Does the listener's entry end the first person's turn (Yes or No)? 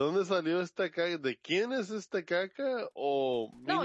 Yes